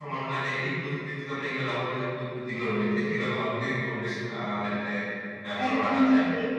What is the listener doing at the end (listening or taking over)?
taking over